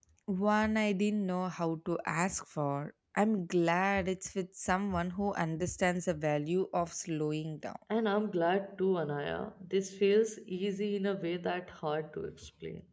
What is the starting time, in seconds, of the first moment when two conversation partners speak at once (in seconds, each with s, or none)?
none